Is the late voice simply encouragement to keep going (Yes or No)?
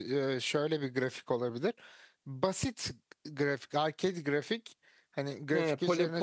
No